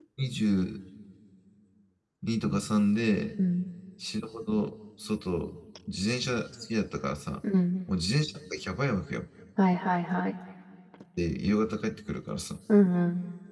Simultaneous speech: No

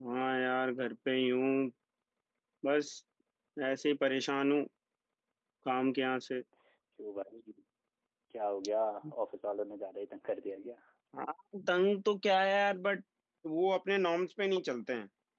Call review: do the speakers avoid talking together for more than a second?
Yes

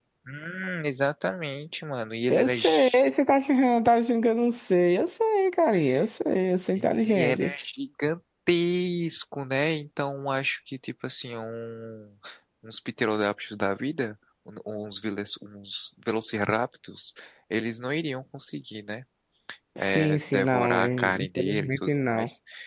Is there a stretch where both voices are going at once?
Yes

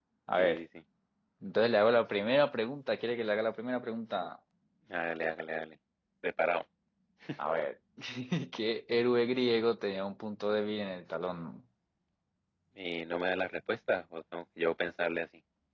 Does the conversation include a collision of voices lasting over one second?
No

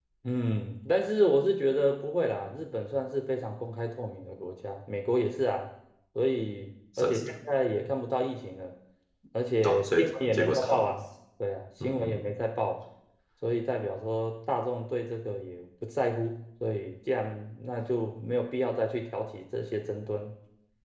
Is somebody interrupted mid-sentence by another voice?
Yes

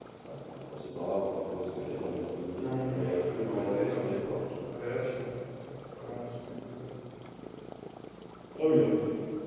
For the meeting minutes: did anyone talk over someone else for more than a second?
Yes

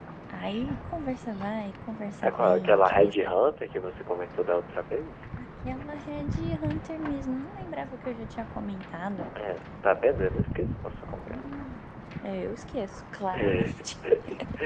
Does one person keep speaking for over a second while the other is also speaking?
Yes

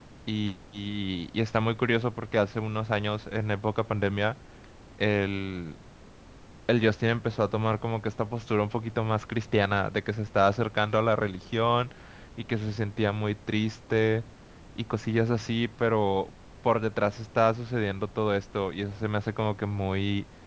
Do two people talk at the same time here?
No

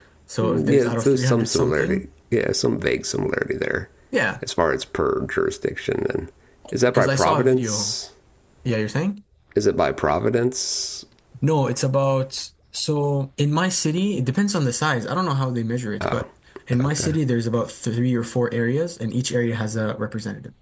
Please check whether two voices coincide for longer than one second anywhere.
Yes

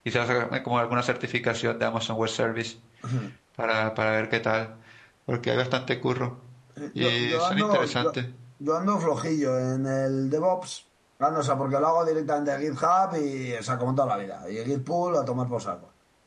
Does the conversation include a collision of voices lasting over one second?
Yes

